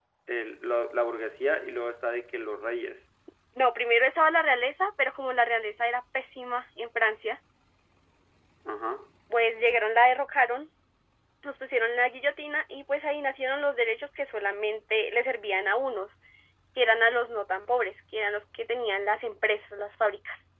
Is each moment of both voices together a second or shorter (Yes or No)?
Yes